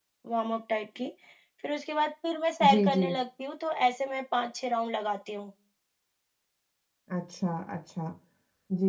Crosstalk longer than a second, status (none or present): none